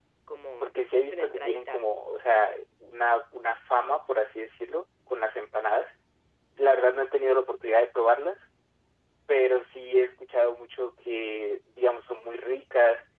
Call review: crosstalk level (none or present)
present